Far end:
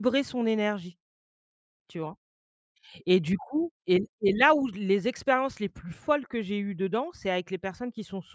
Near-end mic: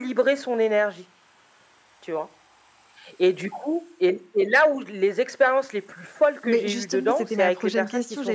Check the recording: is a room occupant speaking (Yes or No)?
Yes